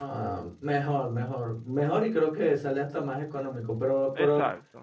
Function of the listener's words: listening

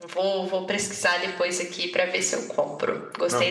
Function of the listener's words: taking over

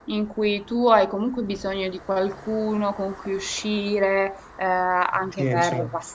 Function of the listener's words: listening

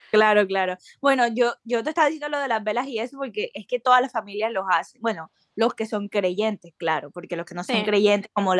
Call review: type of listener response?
listening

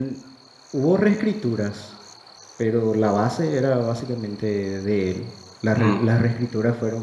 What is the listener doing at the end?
listening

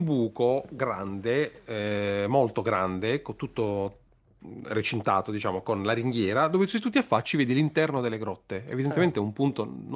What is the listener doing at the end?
listening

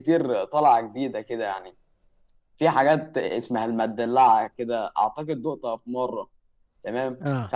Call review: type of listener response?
listening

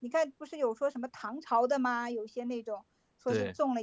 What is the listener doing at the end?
listening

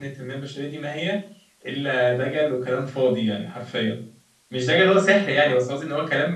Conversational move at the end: listening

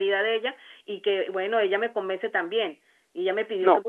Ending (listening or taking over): listening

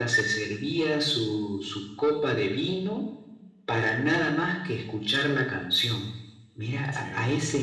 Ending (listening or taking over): listening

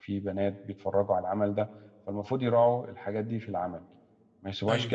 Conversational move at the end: listening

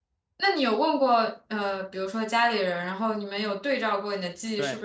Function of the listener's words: taking over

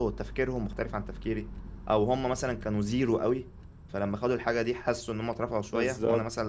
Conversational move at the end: listening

